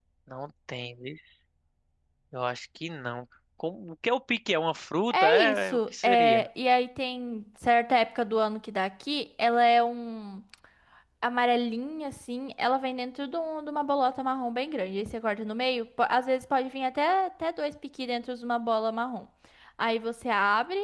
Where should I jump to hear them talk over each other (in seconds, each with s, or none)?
5.1 s